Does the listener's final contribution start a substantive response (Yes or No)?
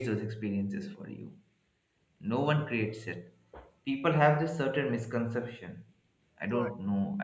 No